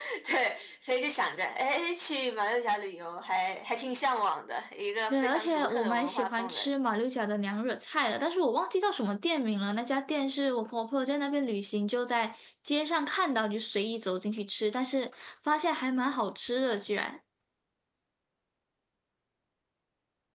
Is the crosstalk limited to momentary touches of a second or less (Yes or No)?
No